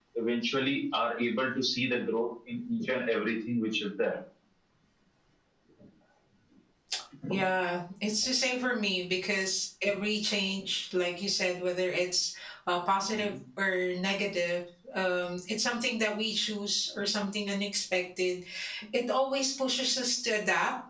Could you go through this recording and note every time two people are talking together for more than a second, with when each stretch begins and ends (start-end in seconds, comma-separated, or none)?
none